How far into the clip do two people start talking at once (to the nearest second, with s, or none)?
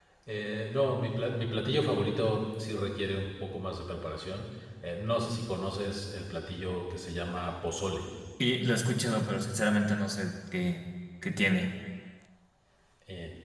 none